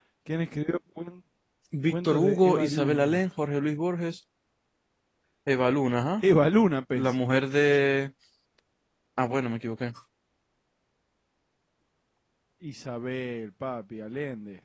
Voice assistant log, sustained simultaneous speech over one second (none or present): present